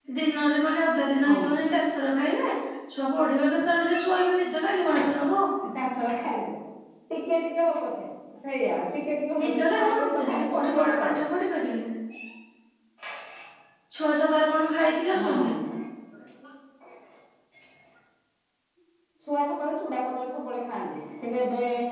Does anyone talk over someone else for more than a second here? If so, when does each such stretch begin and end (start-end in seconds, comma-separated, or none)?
9.4-11.3